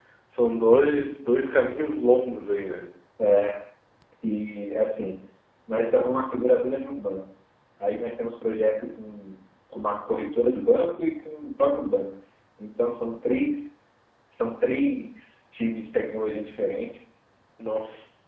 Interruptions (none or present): none